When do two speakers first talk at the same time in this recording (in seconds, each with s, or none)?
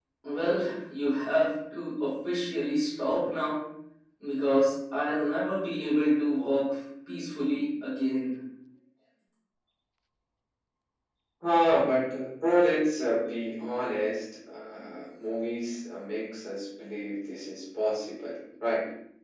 none